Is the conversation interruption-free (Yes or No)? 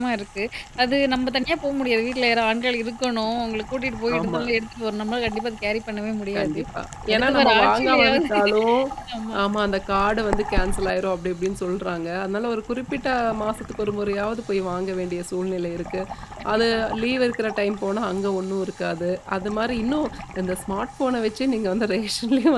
No